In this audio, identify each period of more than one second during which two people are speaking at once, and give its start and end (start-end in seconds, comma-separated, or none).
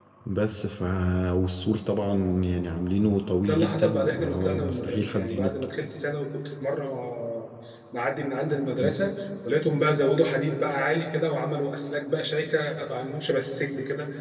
3.5-5.6